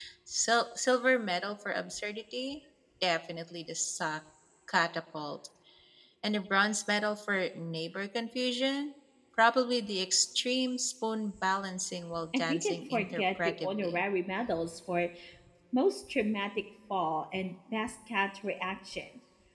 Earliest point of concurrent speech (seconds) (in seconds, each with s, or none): 12.3 s